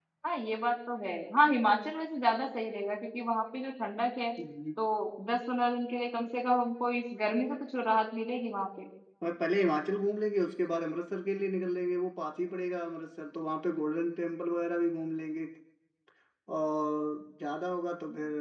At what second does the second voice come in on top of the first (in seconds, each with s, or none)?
none